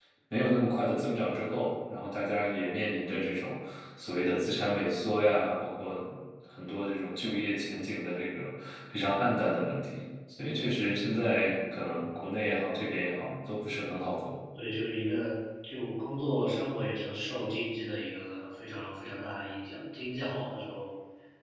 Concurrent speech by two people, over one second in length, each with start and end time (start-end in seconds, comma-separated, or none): none